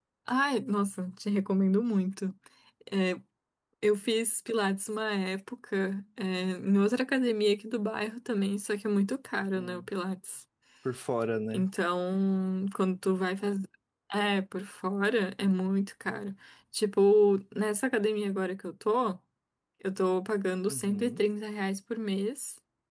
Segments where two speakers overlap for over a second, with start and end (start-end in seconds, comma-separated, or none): none